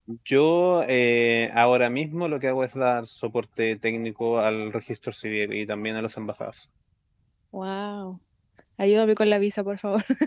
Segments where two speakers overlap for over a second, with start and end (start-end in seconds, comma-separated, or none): none